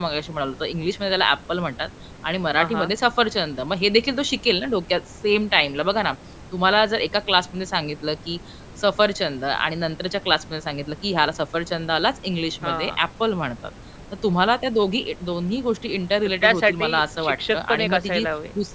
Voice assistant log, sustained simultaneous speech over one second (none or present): present